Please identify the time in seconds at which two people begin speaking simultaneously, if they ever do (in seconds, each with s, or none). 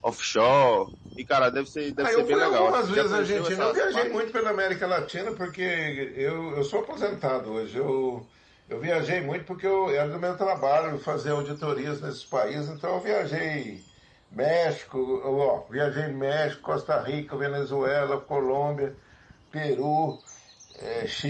2.0 s